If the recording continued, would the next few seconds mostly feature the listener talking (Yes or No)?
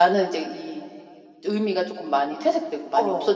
Yes